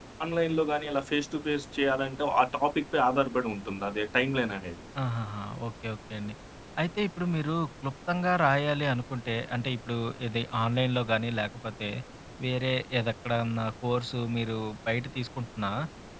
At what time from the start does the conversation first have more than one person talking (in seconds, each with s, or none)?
none